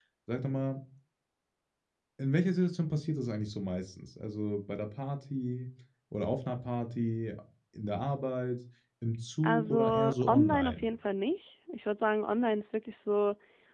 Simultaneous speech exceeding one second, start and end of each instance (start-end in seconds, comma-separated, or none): 9.4-10.9